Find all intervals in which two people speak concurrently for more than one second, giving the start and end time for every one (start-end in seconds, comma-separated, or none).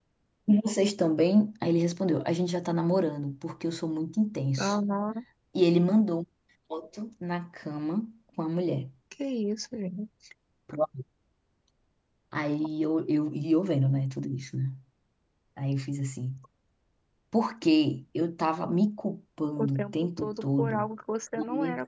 19.6-20.9